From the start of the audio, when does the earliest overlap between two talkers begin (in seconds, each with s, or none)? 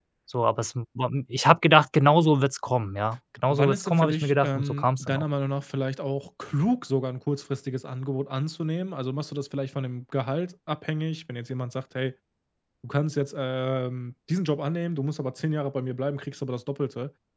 3.5 s